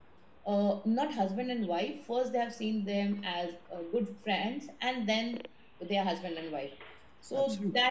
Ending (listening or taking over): listening